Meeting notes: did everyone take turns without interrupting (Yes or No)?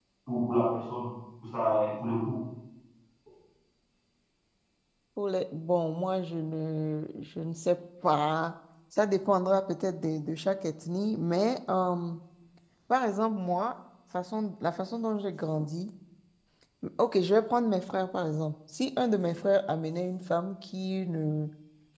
Yes